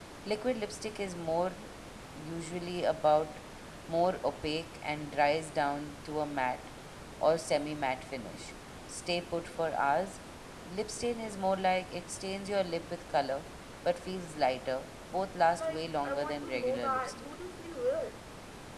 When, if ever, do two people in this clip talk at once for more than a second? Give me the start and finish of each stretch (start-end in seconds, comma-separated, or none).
15.5-17.3